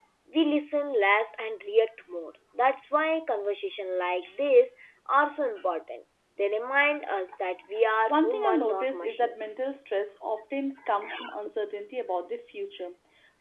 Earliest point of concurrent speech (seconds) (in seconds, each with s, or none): 8.1 s